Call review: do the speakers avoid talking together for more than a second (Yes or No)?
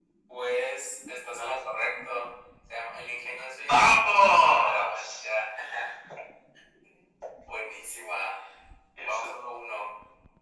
No